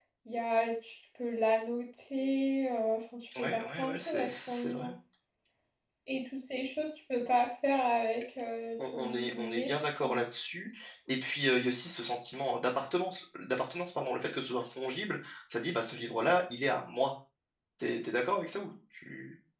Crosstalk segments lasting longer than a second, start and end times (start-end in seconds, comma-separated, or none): 3.4-4.9, 8.9-10.2